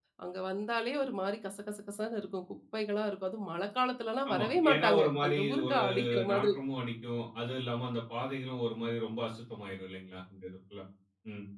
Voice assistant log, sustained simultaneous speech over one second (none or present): present